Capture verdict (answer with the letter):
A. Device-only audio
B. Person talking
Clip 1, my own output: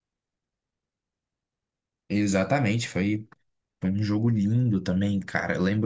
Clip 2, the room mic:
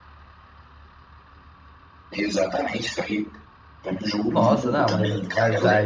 B